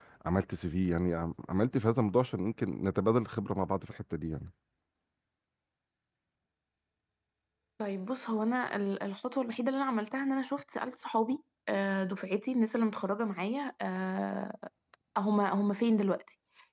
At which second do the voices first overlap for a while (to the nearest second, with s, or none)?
none